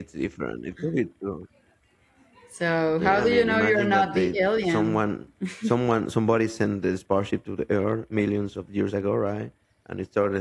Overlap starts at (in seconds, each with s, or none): 3.0 s